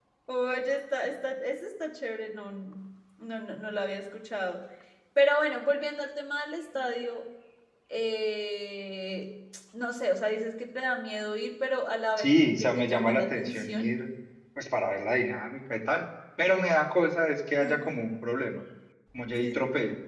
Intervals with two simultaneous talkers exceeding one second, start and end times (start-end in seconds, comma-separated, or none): 12.2-13.9